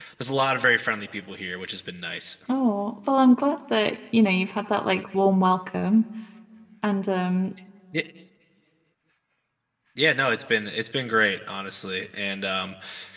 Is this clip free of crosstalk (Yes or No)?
Yes